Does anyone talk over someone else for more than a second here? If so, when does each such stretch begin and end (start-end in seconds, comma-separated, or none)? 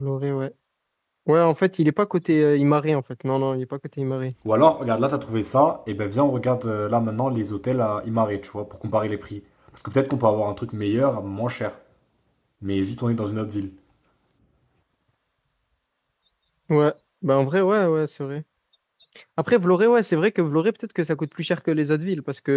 none